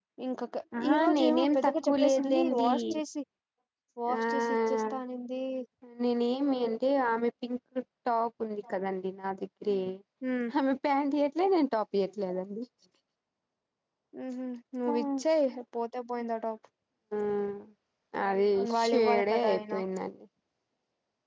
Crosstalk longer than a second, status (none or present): present